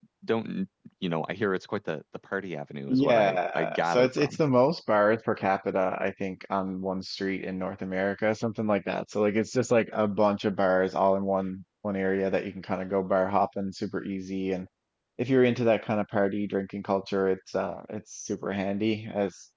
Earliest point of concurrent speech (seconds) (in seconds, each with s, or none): 2.9 s